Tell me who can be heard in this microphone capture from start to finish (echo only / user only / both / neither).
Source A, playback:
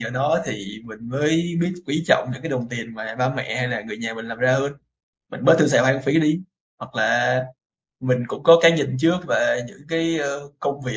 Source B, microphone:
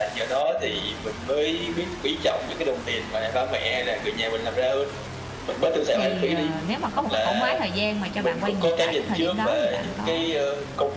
both